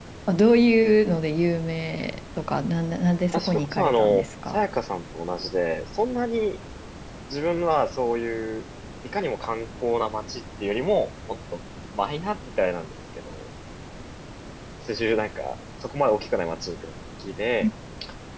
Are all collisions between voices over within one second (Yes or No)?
No